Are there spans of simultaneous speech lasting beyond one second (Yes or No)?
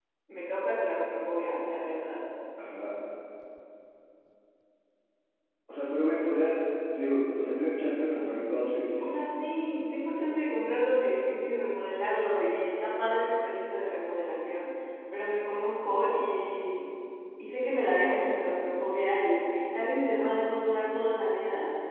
No